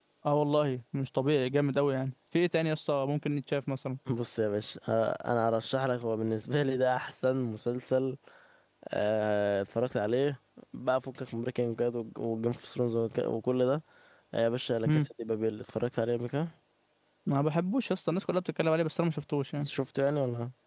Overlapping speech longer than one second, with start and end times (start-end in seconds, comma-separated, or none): none